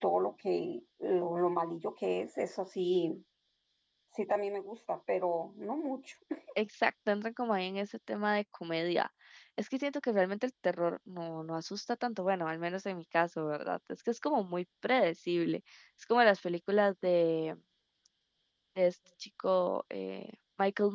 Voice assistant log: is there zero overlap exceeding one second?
Yes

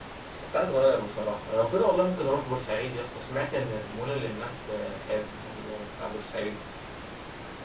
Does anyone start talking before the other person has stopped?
No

